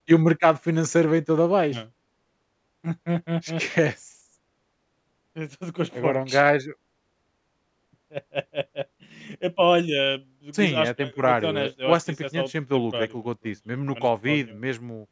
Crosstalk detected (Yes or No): Yes